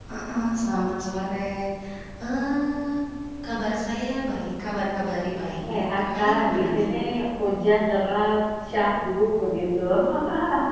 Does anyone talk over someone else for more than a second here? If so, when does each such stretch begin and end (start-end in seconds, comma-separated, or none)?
5.7-6.9